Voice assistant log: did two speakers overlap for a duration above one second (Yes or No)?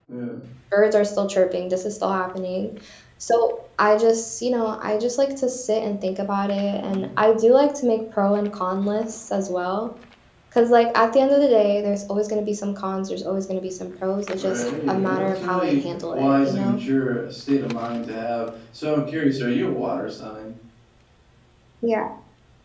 Yes